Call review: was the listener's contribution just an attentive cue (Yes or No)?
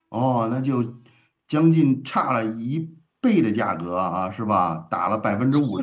No